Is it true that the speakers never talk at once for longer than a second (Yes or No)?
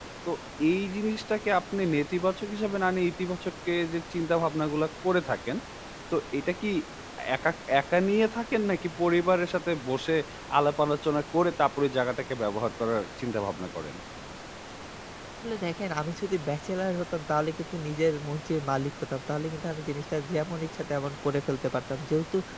Yes